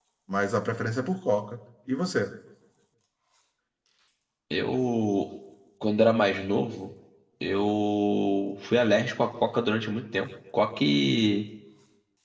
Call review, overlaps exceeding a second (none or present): none